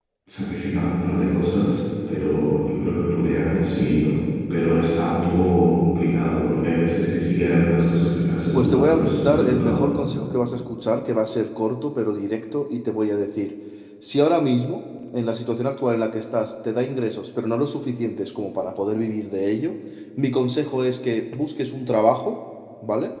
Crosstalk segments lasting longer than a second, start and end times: 8.5-9.8

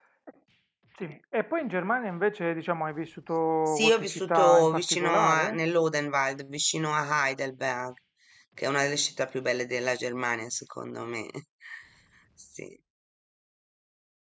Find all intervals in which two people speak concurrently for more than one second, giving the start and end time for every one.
3.7-5.6

